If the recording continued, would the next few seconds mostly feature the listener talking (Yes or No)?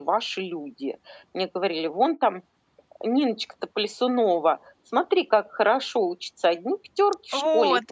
No